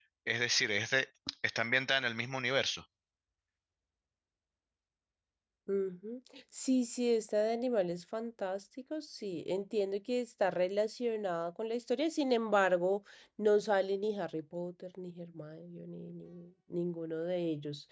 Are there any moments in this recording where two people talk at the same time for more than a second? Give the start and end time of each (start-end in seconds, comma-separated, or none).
none